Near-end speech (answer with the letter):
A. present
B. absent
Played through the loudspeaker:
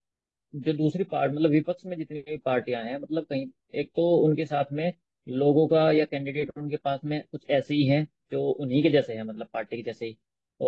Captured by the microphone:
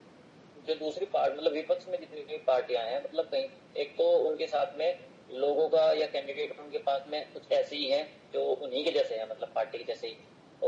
B